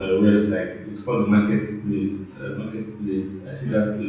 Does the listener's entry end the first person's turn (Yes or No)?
No